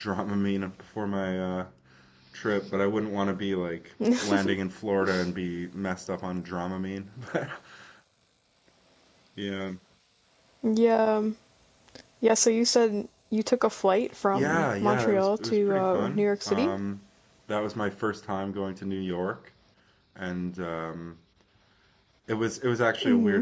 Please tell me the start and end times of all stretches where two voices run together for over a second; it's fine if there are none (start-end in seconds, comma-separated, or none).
14.3-16.7